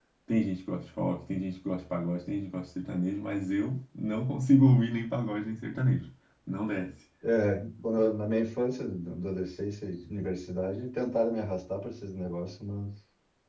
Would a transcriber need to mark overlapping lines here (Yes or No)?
No